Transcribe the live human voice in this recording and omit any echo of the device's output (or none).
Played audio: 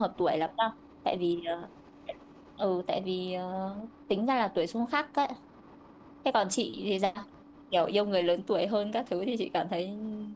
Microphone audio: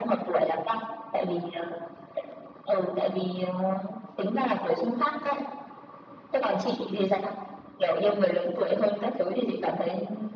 none